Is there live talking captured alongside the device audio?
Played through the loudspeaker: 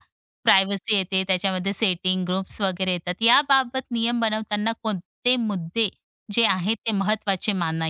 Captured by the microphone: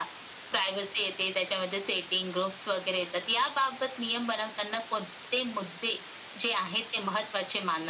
No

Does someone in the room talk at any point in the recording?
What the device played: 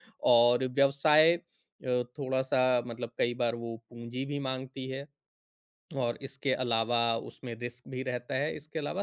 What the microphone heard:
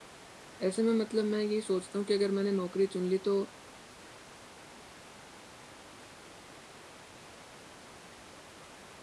Yes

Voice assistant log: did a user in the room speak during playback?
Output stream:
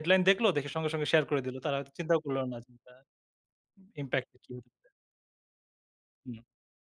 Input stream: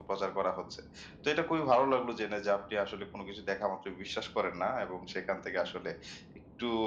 Yes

